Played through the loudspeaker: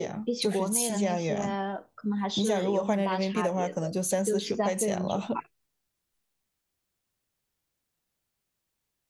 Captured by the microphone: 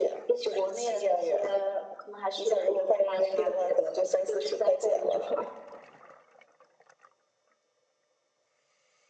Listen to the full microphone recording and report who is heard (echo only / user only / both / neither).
echo only